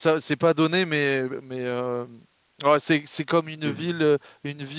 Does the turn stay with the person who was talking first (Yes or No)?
Yes